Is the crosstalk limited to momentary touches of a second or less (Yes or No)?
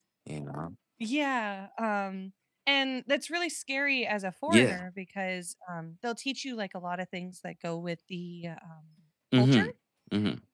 Yes